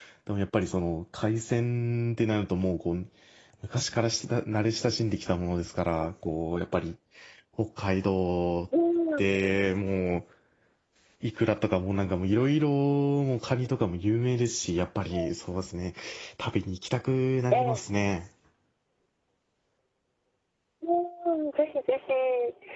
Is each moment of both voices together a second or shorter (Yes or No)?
Yes